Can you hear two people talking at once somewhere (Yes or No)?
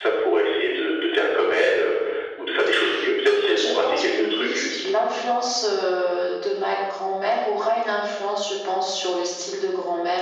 Yes